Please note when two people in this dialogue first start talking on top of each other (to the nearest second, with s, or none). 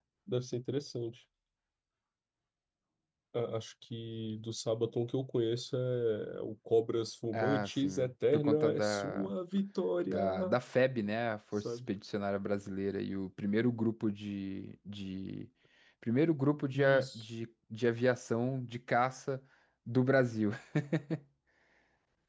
7 s